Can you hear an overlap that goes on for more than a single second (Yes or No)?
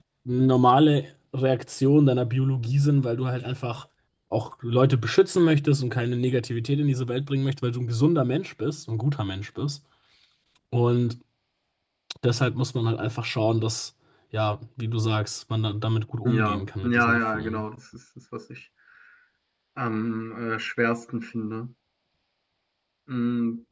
Yes